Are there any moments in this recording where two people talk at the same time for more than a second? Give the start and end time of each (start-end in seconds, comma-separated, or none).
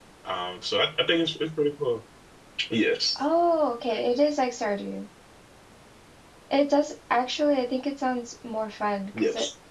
none